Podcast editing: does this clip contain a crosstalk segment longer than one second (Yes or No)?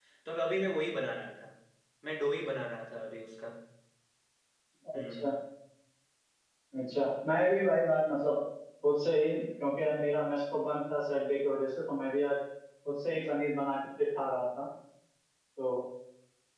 No